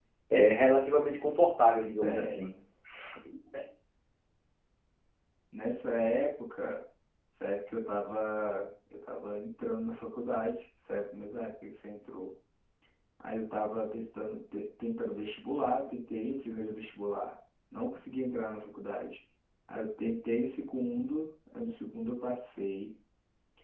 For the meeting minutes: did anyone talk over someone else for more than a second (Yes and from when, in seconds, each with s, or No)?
No